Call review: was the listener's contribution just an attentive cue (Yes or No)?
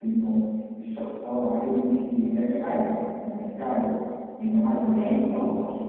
Yes